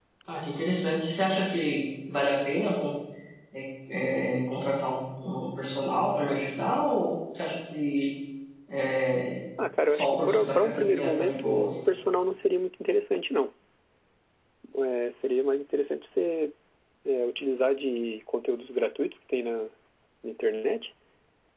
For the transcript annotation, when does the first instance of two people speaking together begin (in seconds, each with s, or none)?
9.9 s